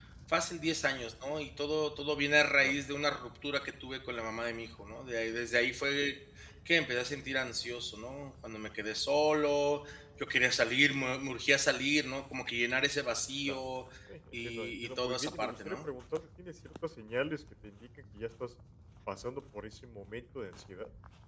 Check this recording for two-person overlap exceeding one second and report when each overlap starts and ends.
14.3-15.9

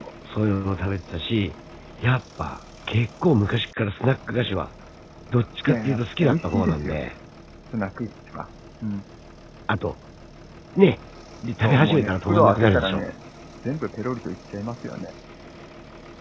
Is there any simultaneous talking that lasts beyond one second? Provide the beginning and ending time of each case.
5.7-7.0, 11.6-13.0

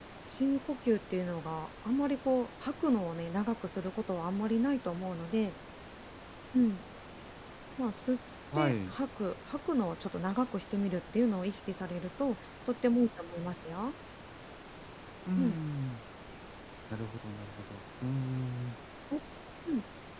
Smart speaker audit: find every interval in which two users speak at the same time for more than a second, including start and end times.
none

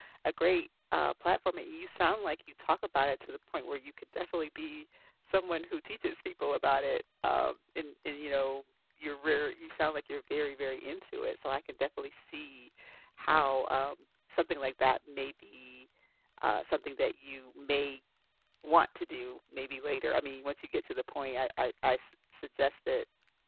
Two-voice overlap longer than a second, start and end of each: none

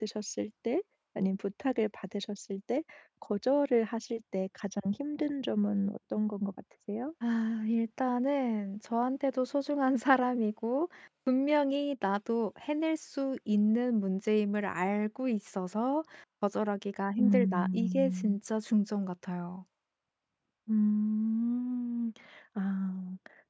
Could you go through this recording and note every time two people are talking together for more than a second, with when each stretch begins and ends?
17.2-18.4

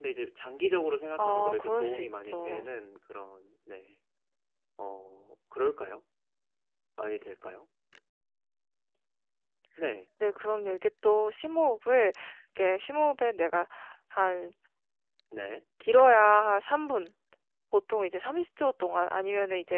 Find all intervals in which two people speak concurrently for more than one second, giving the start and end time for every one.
1.2-2.6

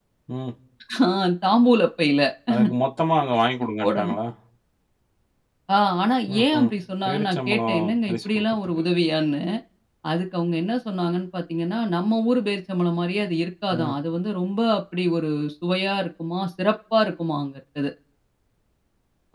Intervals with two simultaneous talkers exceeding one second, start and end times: 7.0-8.8

